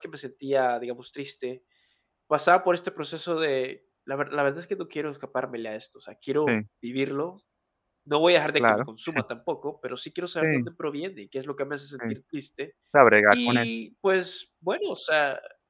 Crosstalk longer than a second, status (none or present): none